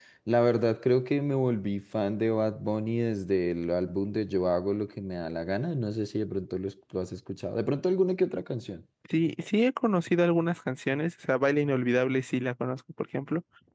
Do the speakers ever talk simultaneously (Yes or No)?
No